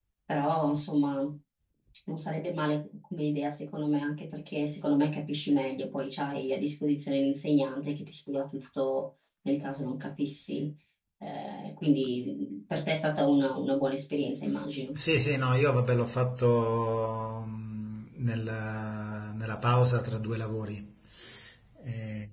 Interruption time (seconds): none

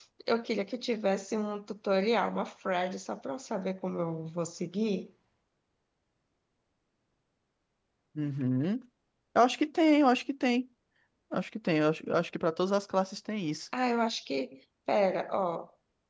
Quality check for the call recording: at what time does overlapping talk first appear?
none

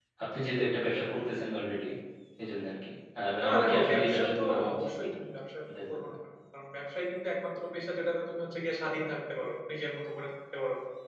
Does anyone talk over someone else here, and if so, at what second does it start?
3.4 s

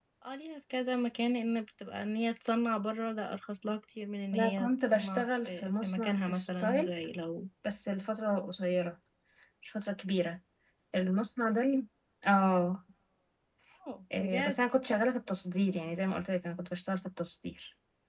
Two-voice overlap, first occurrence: 4.3 s

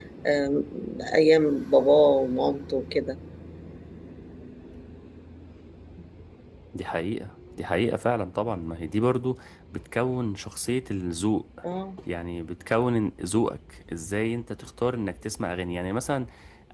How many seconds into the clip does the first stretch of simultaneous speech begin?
none

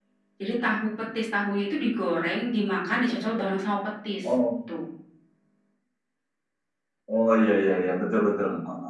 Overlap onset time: none

